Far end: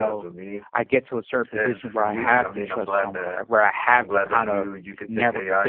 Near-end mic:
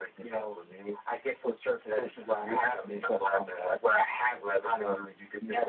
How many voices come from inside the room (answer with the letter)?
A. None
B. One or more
A